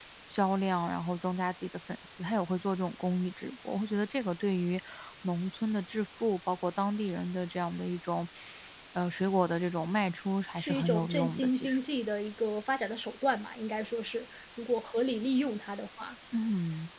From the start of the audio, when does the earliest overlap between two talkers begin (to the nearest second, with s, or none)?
11 s